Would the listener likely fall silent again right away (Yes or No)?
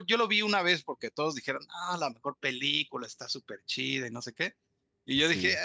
Yes